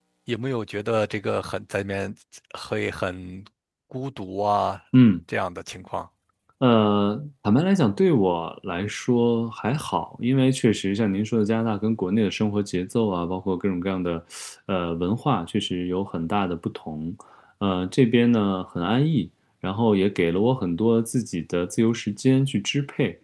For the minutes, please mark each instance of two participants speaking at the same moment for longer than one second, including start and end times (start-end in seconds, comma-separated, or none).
none